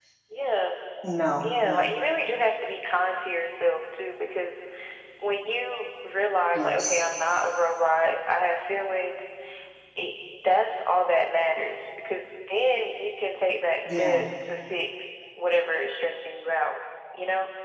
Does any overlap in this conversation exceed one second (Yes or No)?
No